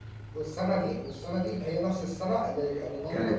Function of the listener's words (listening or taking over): taking over